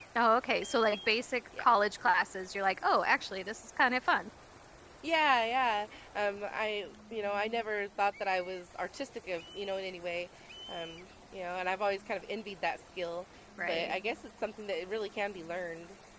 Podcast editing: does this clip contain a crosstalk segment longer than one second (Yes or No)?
No